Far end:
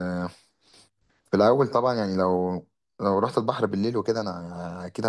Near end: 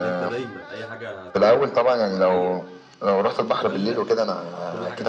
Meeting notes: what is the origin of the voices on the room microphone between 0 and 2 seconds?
both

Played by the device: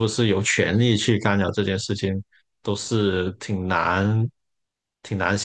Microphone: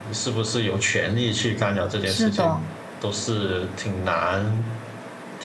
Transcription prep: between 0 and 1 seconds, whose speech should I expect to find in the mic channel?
echo only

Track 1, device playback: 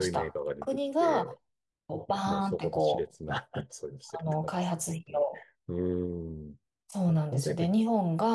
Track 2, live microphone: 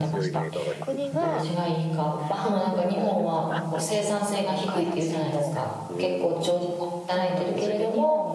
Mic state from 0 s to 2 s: both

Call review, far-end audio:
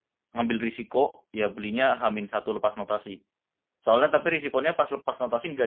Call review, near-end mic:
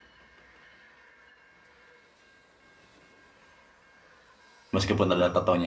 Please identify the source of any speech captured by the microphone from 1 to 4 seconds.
neither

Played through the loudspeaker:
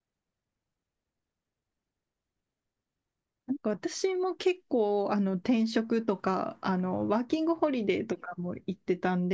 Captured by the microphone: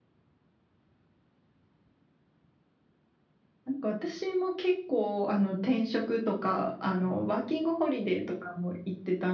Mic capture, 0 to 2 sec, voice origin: neither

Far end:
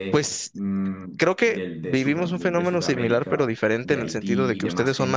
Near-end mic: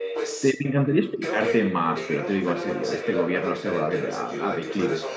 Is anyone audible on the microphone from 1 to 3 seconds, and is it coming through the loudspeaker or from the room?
both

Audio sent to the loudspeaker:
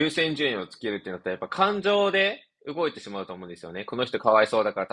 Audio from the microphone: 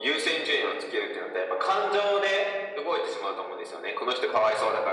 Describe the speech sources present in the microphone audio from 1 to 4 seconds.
echo only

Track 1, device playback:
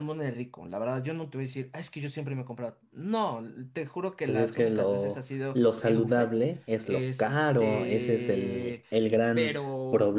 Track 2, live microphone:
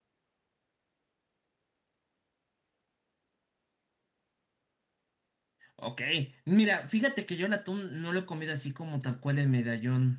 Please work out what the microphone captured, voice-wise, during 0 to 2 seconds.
neither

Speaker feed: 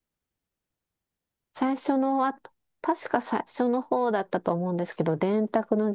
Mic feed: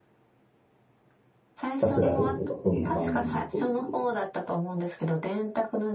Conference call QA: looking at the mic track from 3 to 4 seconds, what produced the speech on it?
both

